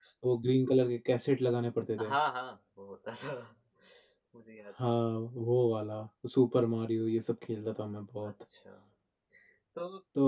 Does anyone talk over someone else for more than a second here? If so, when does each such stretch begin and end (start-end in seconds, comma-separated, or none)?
none